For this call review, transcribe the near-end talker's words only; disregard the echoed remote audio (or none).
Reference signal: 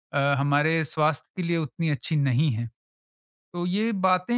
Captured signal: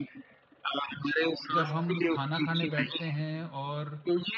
जब हम खाना खाने बैठते हैं और